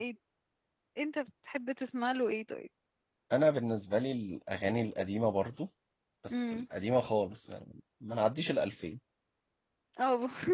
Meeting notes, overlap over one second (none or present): none